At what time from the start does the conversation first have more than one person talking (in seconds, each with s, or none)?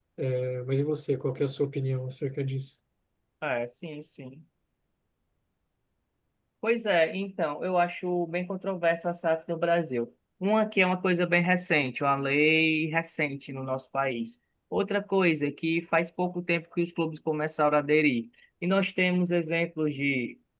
none